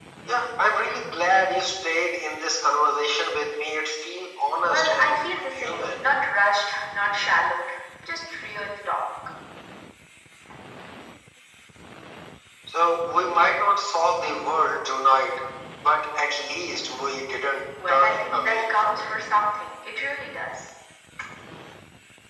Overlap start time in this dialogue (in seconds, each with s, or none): 4.6 s